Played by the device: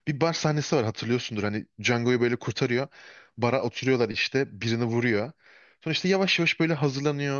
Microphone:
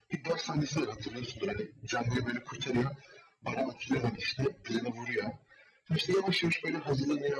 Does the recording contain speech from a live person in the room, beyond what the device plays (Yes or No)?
No